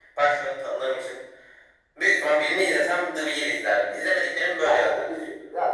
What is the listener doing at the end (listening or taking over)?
taking over